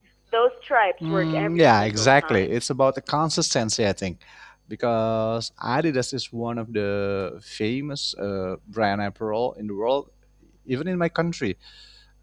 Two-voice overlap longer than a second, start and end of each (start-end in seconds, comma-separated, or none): 1.0-2.5